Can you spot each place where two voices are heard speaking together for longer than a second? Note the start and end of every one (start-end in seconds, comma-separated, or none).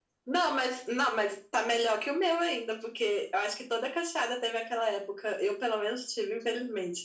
none